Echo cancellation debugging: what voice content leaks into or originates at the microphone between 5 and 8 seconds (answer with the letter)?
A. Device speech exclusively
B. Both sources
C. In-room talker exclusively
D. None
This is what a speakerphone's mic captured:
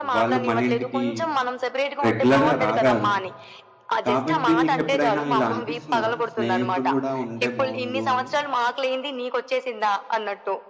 B